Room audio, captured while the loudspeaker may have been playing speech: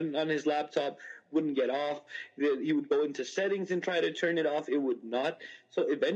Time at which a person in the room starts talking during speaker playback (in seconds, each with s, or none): none